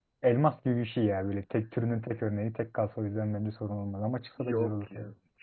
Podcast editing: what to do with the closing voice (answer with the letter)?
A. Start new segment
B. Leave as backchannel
A